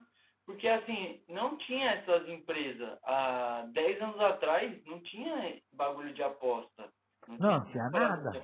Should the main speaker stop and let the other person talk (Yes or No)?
Yes